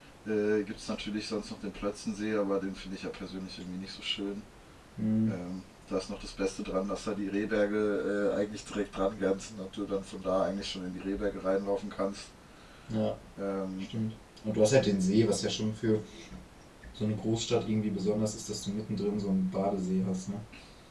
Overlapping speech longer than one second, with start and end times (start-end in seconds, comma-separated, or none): none